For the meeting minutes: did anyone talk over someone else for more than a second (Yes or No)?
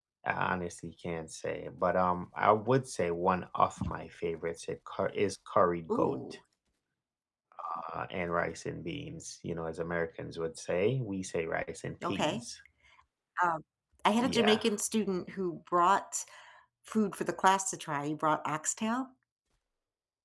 No